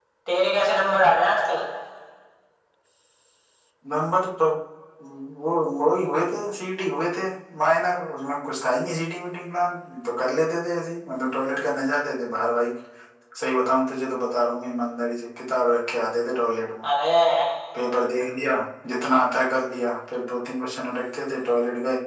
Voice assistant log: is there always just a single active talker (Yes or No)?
Yes